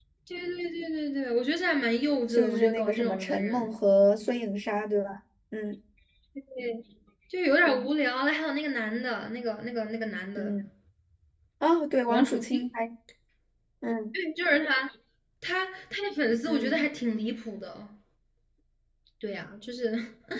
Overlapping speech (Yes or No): Yes